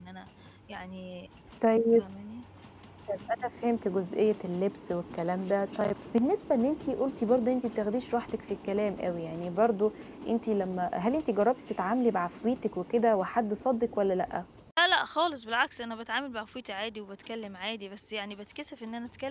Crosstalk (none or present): none